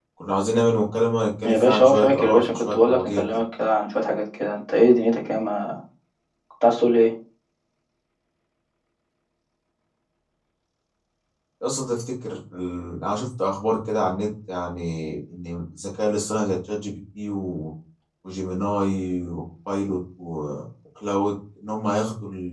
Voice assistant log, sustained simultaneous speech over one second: present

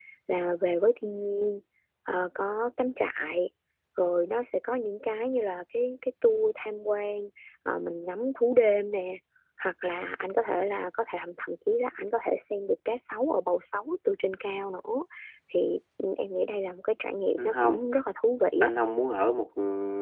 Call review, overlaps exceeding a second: none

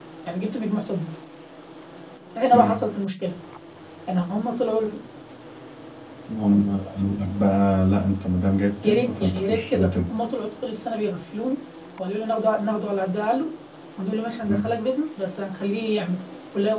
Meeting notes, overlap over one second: present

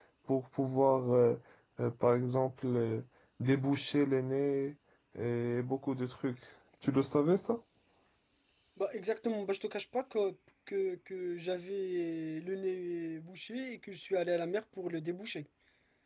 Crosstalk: none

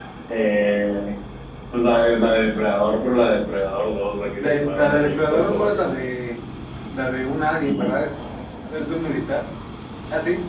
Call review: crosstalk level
present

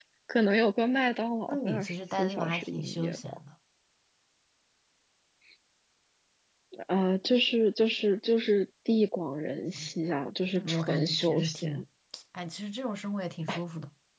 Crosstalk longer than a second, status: present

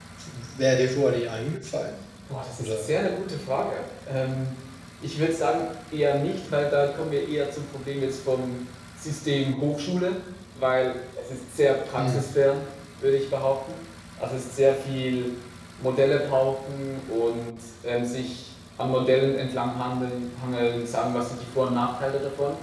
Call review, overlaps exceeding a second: none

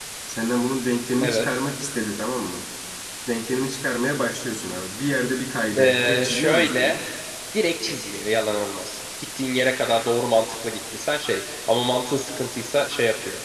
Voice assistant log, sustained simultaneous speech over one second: present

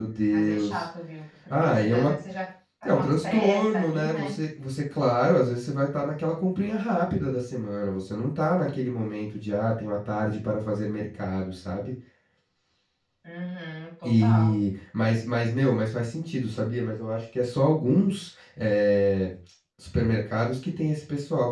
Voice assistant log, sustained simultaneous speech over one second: present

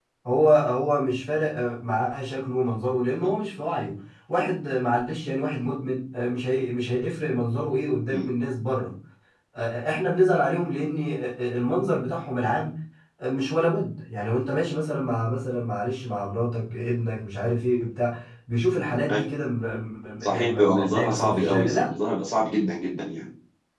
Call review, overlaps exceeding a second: present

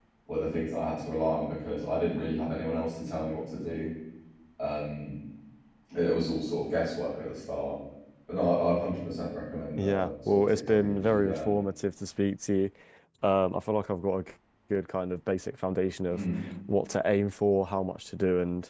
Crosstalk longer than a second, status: present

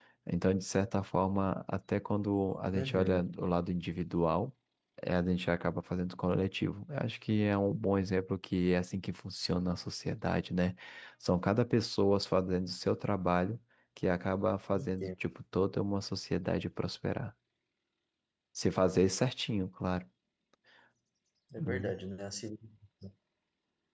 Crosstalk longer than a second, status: none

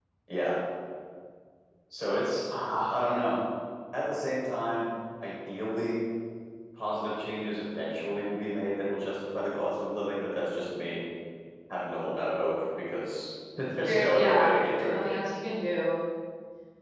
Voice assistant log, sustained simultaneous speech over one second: present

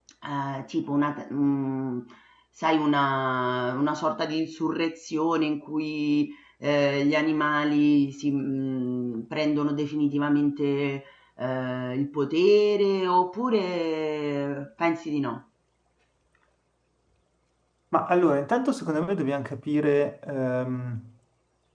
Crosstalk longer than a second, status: none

